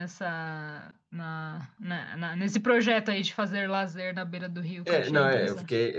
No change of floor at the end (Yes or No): No